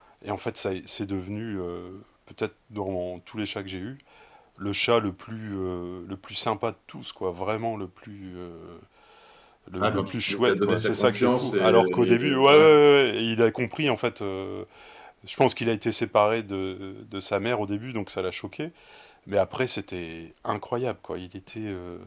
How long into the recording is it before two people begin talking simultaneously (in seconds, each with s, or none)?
9.8 s